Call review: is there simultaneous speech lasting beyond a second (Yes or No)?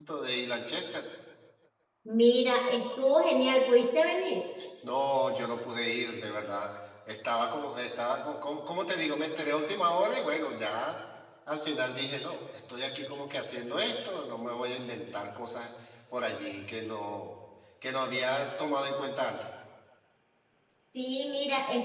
No